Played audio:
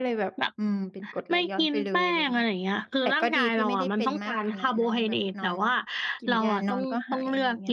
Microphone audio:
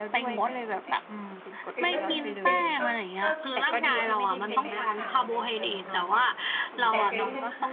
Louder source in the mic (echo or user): echo